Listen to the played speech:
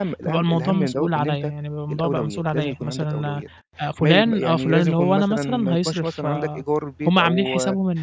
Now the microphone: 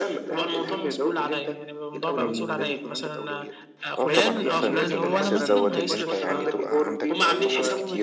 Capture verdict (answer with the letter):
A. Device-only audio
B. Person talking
B